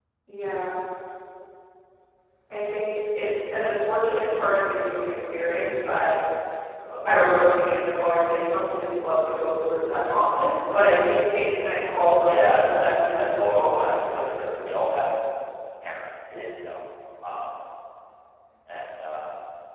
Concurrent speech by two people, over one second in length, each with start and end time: 12.2-14.6

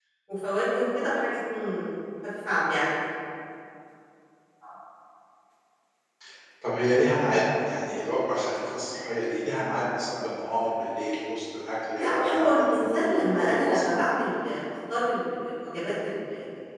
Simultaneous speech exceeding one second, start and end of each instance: 11.9-14.0

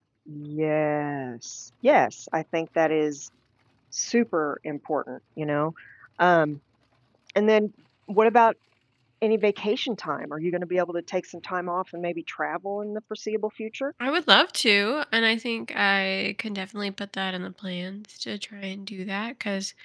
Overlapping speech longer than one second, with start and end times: none

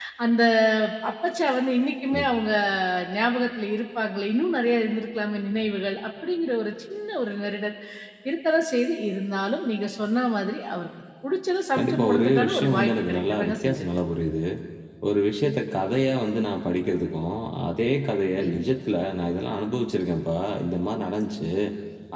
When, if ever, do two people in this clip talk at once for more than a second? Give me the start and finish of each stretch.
11.8-13.9

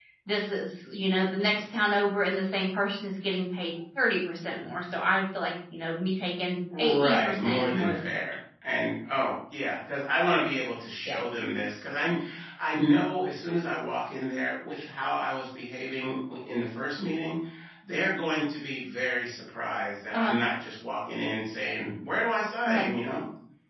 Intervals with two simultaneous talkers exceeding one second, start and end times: 6.8-8.3

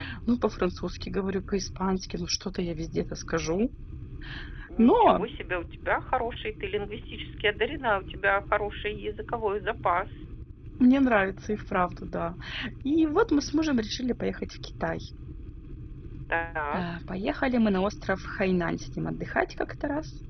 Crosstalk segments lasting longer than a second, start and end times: none

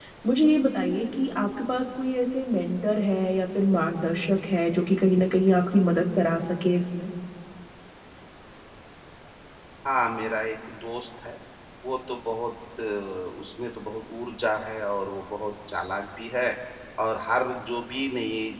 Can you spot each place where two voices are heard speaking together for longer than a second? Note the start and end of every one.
none

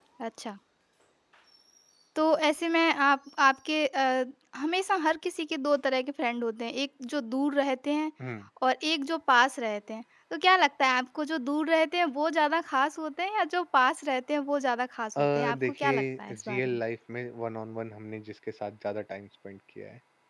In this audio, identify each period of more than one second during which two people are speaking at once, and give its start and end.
15.2-16.8

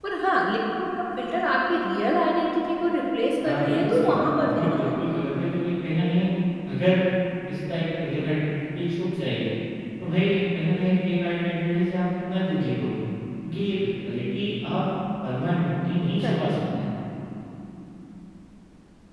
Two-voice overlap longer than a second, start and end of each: 3.4-4.9

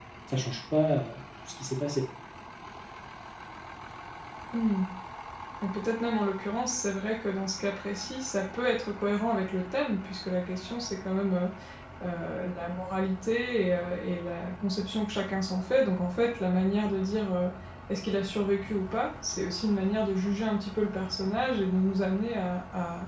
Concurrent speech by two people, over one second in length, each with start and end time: none

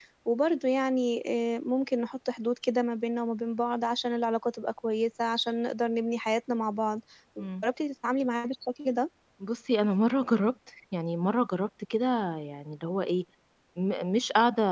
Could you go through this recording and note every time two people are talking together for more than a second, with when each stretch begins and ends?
none

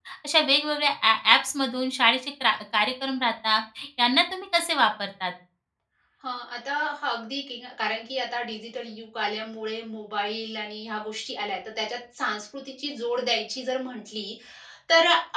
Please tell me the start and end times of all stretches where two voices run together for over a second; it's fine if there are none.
none

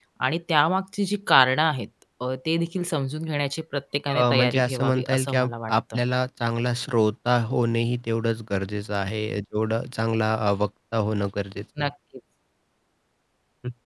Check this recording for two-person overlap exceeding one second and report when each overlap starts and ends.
4.1-6.0

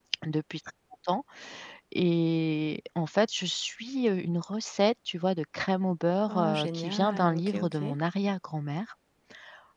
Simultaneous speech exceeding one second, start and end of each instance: 6.3-8.0

